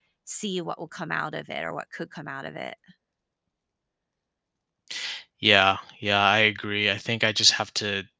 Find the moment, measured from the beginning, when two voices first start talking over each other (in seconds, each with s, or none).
none